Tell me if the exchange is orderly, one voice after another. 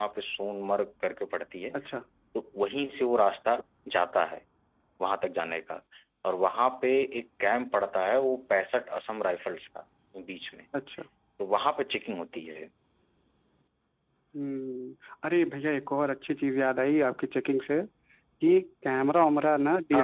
Yes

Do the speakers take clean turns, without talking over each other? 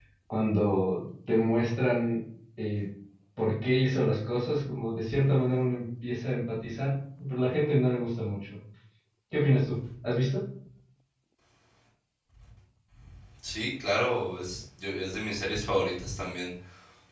Yes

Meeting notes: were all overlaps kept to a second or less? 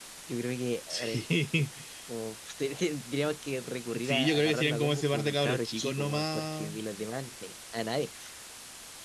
No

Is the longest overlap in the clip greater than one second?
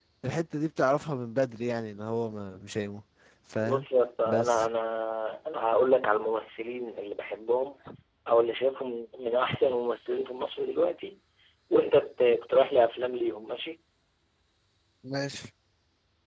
No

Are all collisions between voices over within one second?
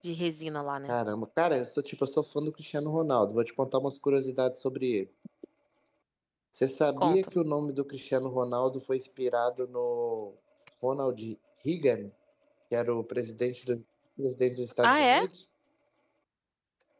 Yes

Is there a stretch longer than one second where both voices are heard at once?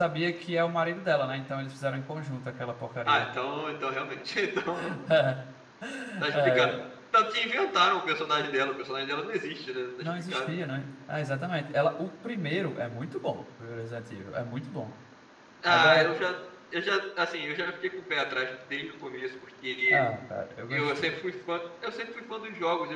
No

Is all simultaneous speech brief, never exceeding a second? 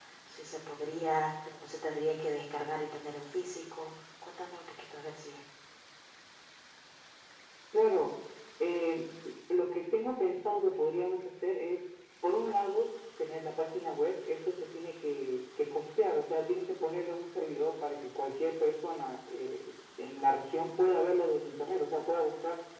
Yes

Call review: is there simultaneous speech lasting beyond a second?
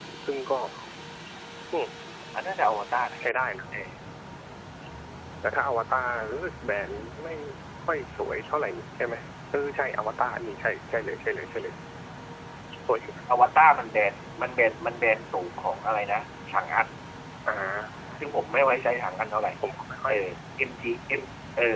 No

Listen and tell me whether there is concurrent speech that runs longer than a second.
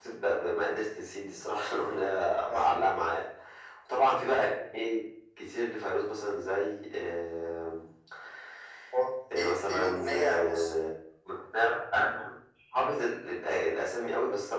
Yes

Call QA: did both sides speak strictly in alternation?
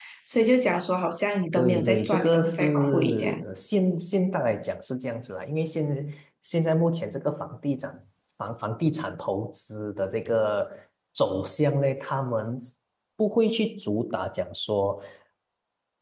No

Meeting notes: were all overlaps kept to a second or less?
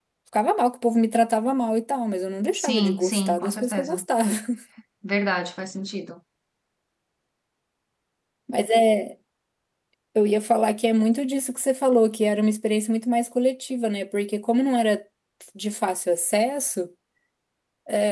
No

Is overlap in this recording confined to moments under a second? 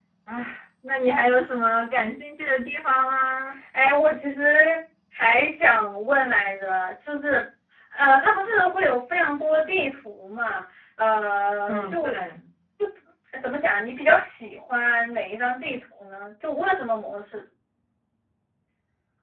Yes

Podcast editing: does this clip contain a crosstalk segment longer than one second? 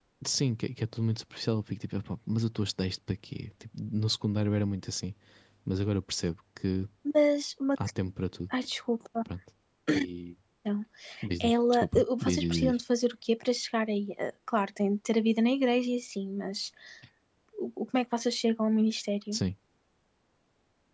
Yes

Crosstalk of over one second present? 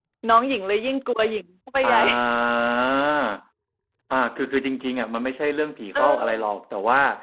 No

